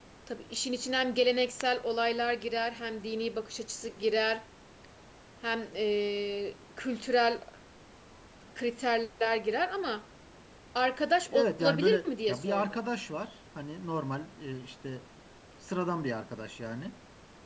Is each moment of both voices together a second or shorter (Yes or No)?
No